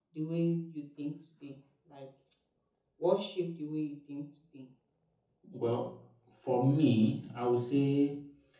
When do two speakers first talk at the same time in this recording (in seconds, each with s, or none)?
none